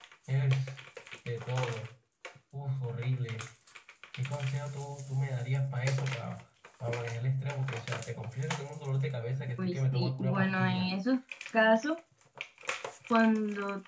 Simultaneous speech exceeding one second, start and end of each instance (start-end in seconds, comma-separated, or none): 9.6-10.9